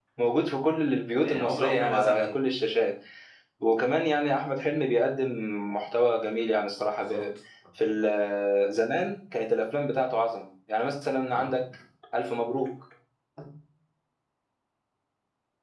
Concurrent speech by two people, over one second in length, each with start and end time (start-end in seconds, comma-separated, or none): 1.1-2.4